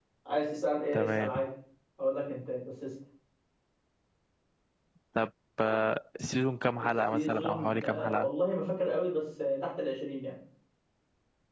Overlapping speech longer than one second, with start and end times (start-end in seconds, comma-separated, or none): 6.8-8.3